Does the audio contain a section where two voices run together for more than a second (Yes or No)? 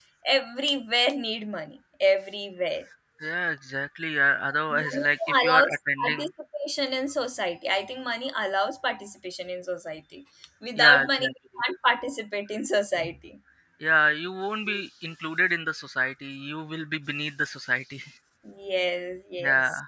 Yes